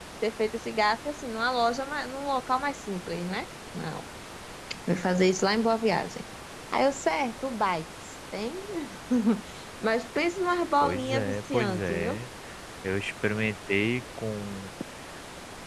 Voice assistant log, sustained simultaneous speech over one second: present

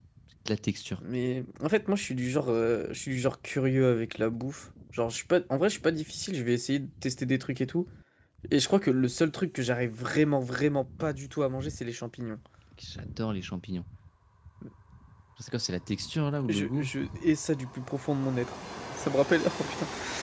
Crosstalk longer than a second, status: none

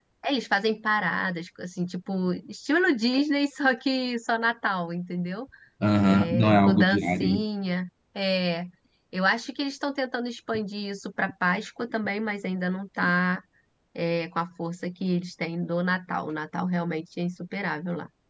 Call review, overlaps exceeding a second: present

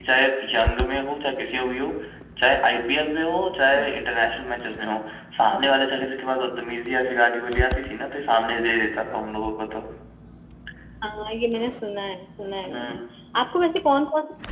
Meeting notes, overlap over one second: none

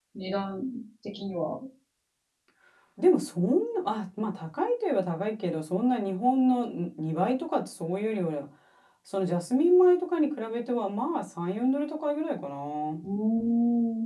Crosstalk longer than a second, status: none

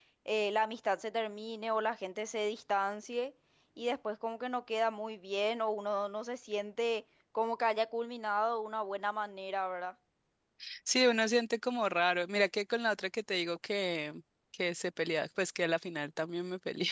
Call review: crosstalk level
none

